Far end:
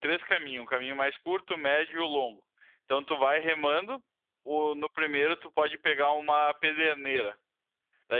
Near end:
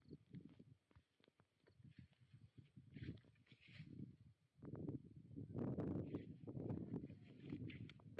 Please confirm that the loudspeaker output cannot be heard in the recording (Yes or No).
Yes